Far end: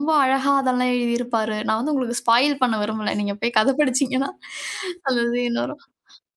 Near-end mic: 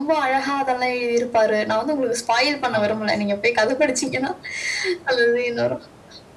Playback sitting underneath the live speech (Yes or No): No